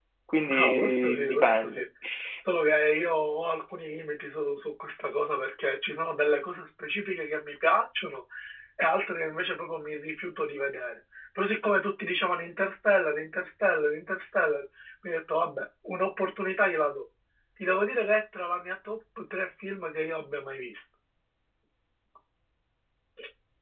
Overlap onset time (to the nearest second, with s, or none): 1 s